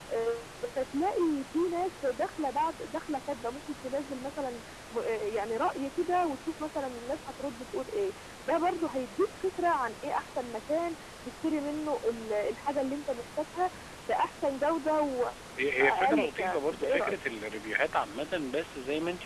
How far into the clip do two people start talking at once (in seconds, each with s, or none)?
15.8 s